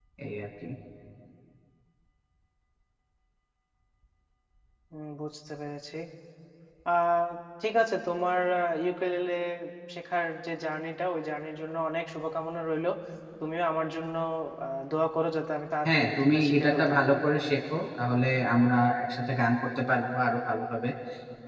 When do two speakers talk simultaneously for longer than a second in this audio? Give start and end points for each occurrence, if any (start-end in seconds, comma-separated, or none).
15.8-17.1